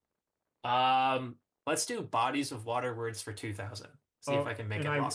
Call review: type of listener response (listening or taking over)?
taking over